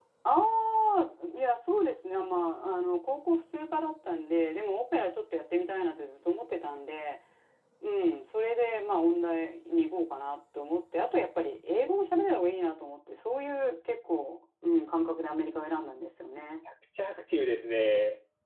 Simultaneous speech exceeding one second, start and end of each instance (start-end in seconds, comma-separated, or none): none